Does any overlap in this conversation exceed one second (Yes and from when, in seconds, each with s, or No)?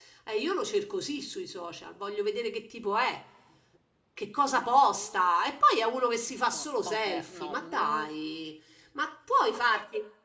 Yes, from 6.5 s